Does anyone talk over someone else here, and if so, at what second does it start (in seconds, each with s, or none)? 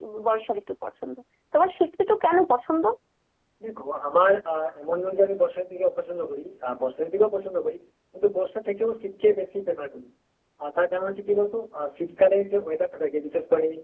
none